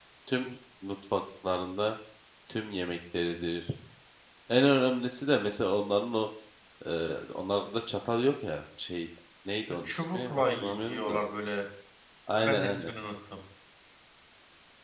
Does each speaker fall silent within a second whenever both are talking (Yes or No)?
No